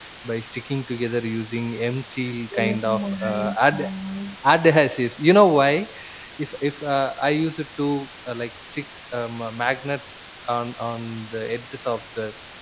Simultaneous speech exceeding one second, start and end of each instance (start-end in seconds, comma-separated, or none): 2.6-3.9